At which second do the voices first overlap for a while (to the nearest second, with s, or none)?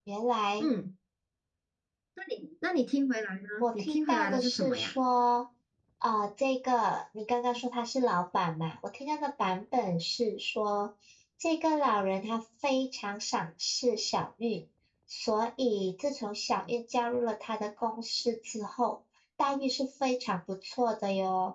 4 s